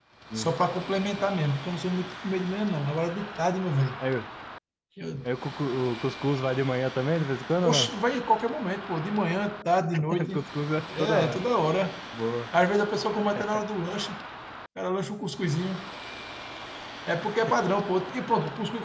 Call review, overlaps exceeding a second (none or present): none